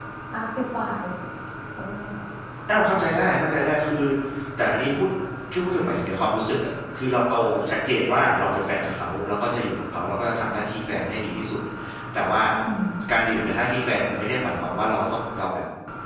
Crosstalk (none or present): none